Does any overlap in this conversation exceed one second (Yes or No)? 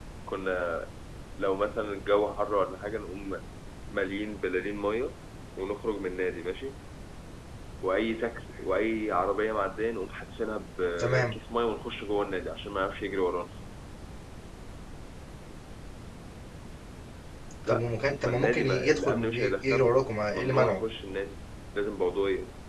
Yes